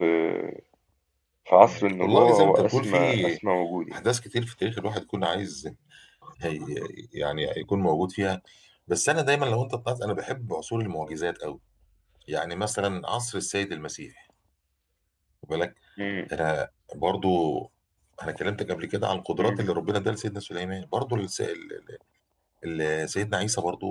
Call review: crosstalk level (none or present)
present